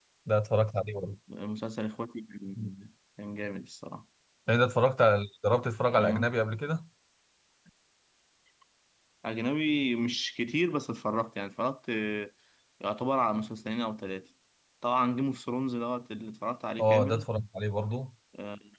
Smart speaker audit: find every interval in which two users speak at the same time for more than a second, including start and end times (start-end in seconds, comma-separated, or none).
none